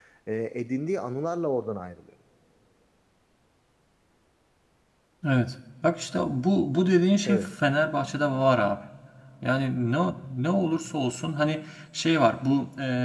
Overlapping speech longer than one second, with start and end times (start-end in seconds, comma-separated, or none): none